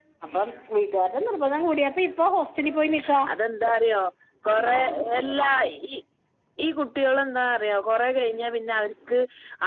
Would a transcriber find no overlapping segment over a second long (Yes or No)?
Yes